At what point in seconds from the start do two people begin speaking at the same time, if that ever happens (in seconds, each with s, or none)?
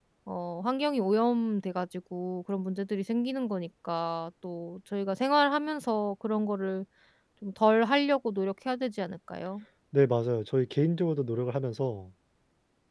none